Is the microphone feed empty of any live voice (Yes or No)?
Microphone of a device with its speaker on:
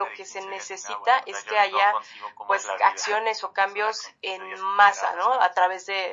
Yes